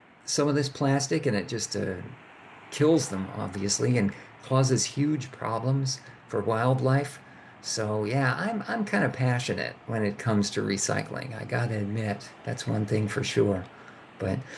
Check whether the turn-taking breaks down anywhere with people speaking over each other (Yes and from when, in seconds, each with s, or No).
No